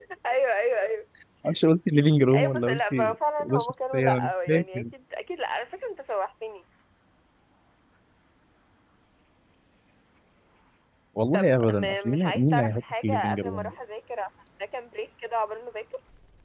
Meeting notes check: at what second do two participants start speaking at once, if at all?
2.3 s

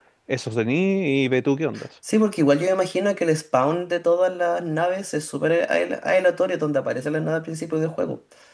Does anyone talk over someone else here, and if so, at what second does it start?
none

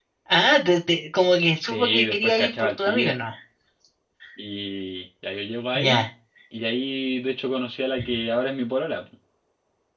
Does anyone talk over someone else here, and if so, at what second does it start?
1.6 s

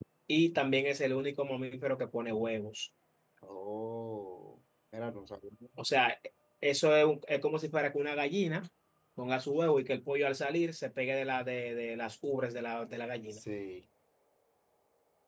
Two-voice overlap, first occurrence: none

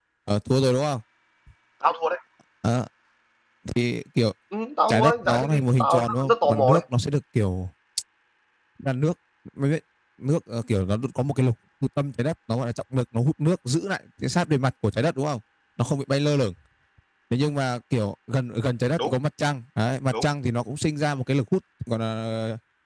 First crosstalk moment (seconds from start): 4.9 s

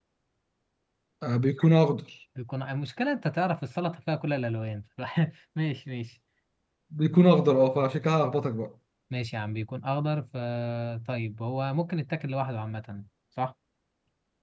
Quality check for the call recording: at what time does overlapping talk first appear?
none

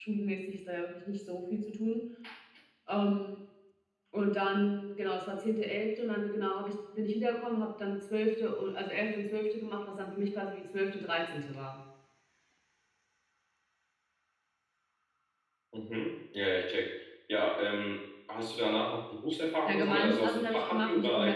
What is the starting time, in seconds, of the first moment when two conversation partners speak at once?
19.6 s

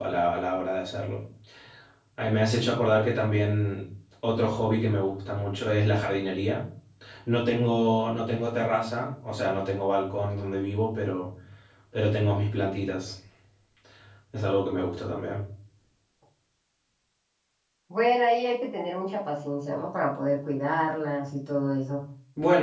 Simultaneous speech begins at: none

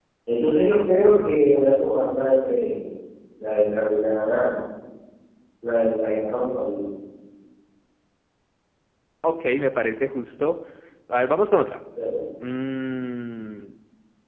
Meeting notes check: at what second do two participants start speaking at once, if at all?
none

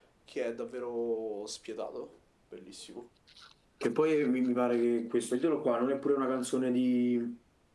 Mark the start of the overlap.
none

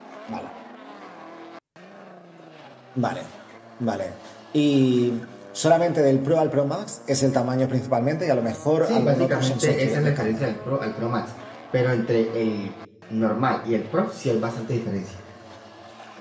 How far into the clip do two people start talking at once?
8.8 s

